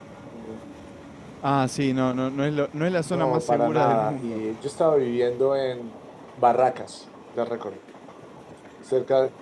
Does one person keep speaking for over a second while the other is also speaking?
Yes, from 3.0 s

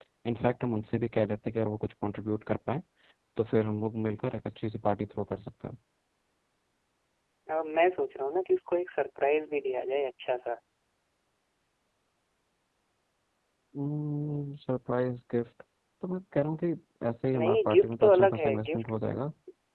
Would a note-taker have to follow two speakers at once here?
Yes, from 17.3 s

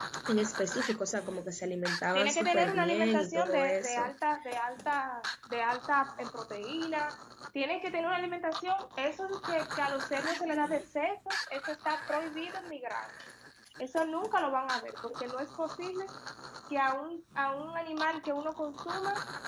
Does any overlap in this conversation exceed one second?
Yes, from 2.1 s

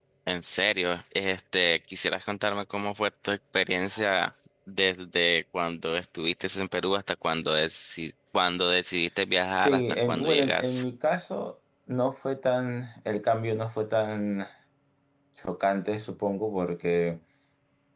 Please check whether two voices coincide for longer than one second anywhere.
Yes, from 9.5 s

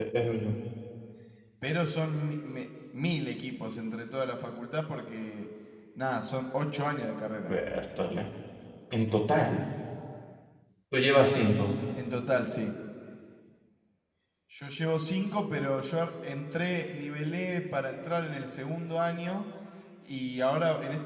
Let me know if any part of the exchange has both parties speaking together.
No

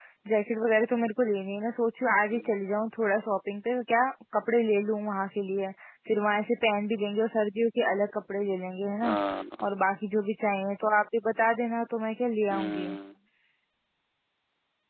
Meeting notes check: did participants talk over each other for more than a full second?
No

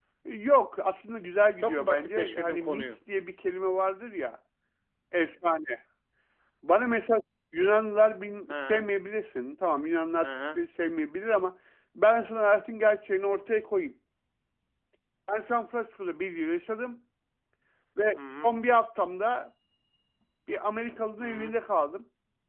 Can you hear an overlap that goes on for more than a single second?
Yes, from 1.6 s

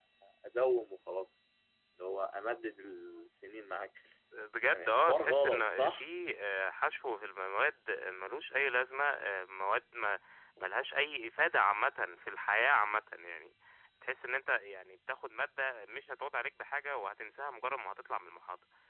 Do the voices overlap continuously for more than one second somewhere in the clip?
Yes, from 4.7 s

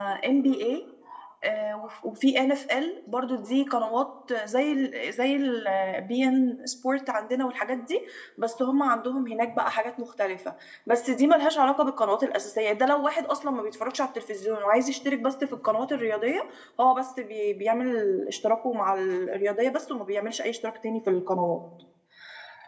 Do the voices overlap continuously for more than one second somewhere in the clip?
No

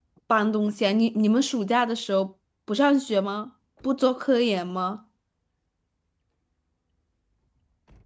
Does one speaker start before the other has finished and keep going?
No

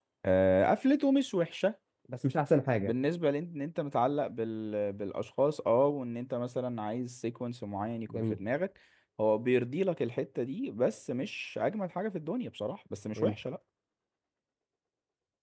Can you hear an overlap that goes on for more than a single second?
No

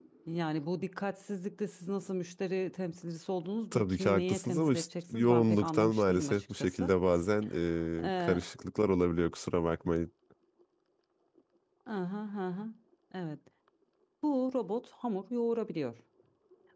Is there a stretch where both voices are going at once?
Yes, from 3.7 s

